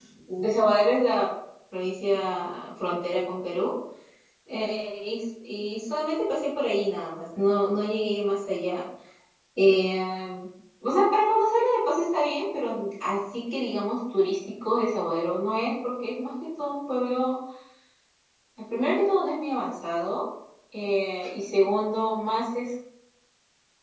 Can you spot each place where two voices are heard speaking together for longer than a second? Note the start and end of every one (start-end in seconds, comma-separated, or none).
none